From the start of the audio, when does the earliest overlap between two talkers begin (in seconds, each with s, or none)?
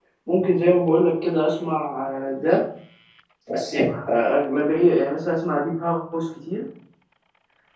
none